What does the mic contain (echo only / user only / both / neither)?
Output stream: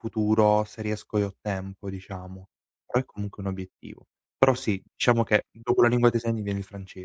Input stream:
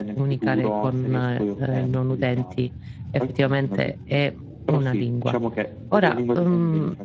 both